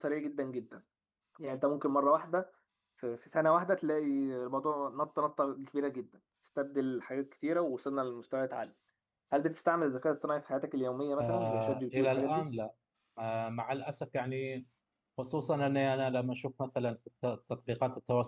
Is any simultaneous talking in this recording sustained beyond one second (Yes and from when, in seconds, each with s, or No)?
Yes, from 11.2 s